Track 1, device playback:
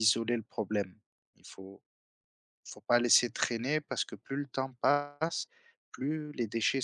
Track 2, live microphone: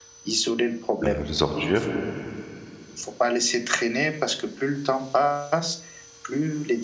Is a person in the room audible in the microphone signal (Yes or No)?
Yes